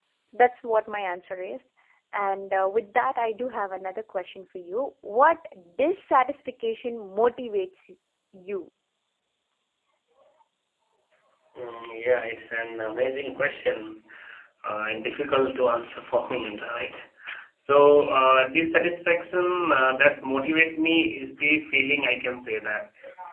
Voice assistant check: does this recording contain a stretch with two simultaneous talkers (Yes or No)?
No